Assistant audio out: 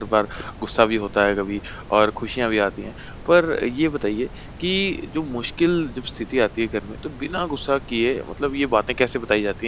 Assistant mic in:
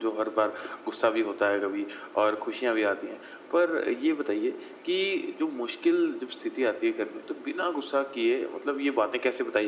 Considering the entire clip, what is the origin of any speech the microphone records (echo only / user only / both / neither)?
echo only